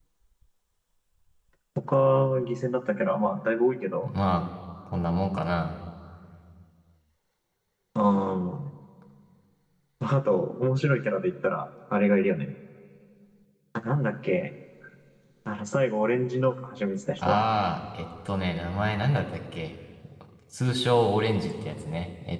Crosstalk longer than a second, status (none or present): none